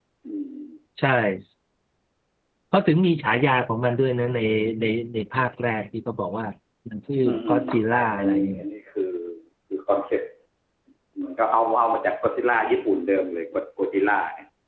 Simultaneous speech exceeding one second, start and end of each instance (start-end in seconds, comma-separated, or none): 7.2-8.6